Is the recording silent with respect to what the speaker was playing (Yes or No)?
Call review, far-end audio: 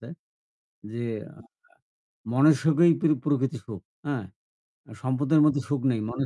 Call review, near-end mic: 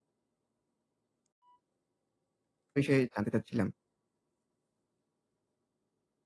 Yes